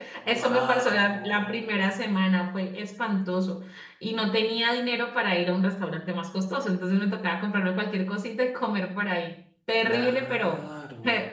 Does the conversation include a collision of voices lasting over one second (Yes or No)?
Yes